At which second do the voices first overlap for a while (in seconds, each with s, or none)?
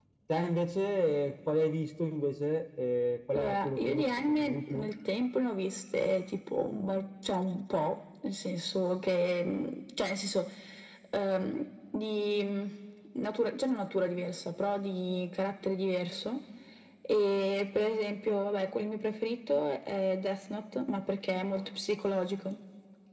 3.3 s